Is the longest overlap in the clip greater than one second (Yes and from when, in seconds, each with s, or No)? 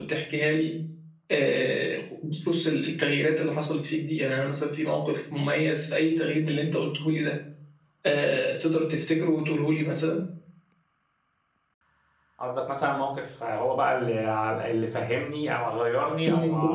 No